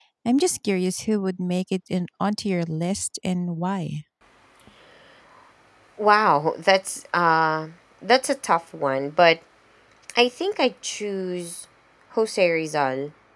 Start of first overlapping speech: none

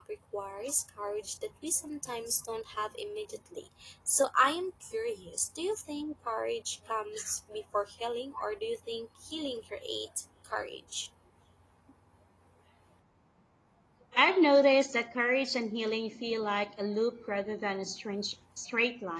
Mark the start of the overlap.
none

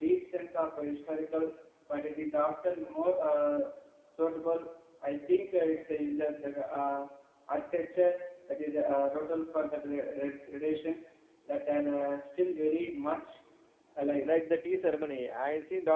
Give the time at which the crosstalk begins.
none

